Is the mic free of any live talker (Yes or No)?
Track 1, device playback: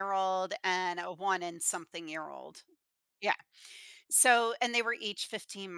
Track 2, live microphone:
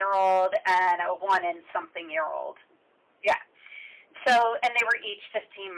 Yes